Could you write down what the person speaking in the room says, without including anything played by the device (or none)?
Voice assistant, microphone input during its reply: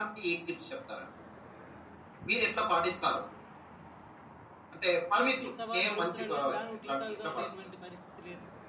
టీ ఇప్పిస్తావా అని అడుగుతున్నాడు గానీ, దా నువ్వు టీ తాగుదాం అనేటువంటి పరిస్థితి లేదు.